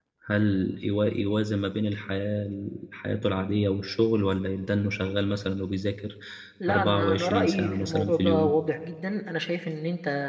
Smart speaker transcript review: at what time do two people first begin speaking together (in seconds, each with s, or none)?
6.7 s